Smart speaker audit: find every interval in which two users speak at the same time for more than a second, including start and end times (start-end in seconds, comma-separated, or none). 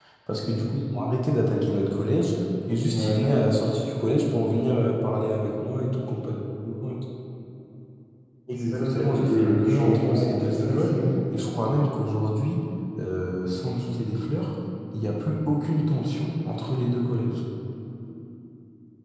8.5-11.0